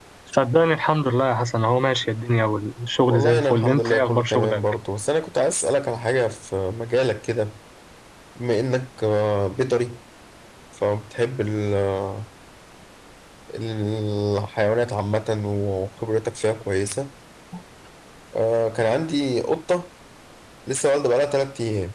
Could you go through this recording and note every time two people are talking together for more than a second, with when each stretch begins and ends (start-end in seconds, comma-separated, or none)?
3.1-4.6